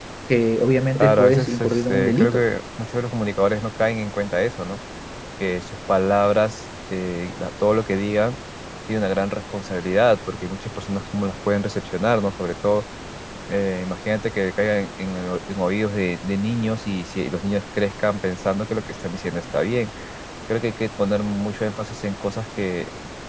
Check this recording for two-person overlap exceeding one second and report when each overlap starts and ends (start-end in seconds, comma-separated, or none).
0.9-2.4